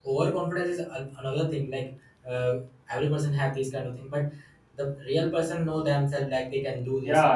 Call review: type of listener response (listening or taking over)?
taking over